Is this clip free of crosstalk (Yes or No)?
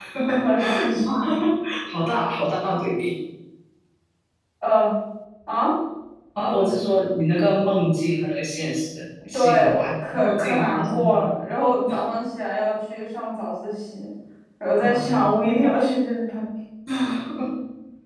No